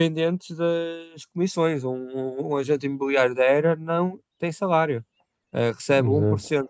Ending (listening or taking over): listening